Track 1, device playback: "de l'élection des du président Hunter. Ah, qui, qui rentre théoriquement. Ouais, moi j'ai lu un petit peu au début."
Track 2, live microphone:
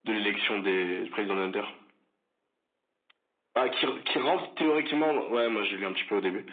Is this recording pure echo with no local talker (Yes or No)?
Yes